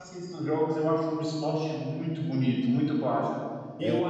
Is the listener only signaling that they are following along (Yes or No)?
Yes